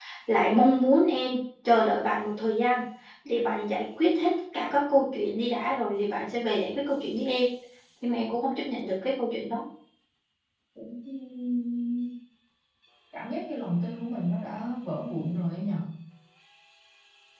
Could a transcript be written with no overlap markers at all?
Yes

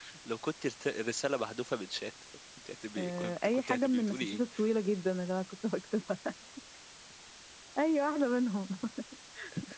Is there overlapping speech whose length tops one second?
Yes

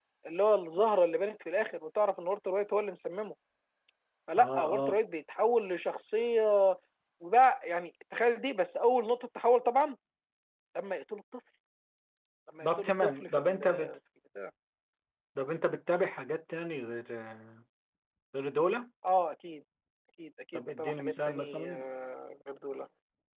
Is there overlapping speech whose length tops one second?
Yes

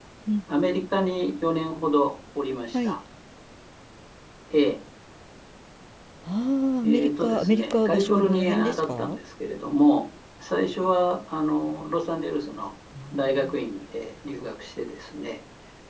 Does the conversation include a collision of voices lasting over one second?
Yes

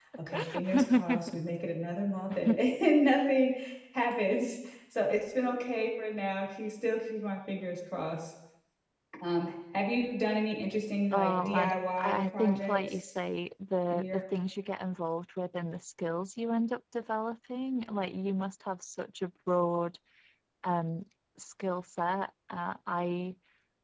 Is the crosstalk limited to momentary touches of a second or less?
No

